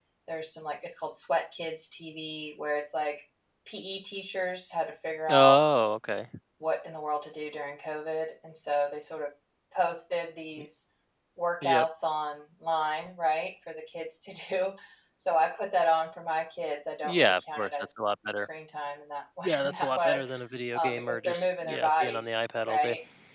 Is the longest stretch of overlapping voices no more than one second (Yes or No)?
No